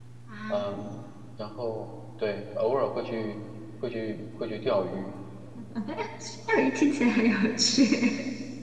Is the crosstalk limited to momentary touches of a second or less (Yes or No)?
Yes